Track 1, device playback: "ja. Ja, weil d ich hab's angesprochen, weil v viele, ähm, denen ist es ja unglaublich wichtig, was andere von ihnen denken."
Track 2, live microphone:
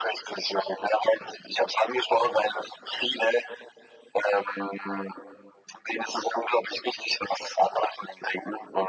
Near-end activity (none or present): none